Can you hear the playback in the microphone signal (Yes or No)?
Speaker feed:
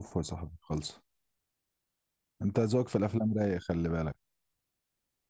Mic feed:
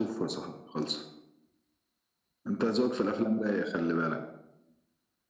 Yes